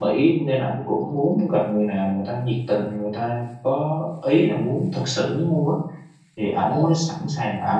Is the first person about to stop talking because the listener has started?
No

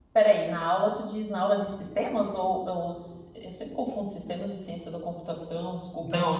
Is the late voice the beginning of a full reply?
Yes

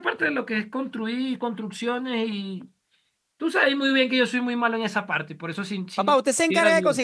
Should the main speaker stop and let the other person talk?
Yes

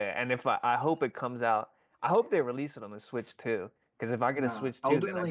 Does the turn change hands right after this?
Yes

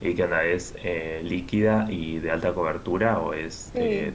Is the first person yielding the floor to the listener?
Yes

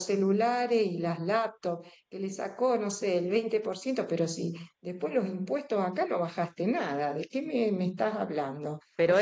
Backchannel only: Yes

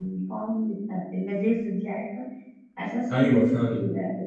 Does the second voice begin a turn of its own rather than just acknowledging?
No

